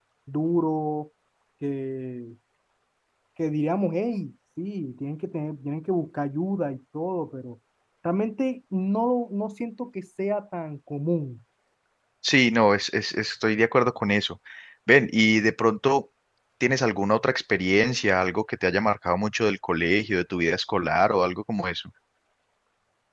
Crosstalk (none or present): none